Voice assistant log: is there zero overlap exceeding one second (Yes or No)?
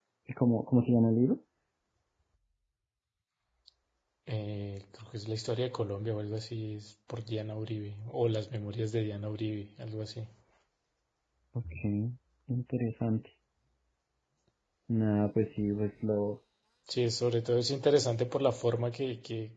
Yes